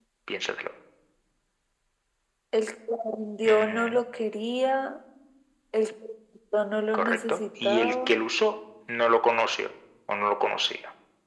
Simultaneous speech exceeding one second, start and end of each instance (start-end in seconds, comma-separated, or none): 6.9-8.2